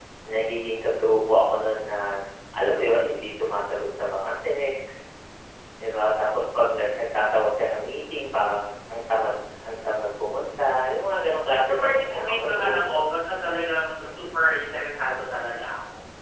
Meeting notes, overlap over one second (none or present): present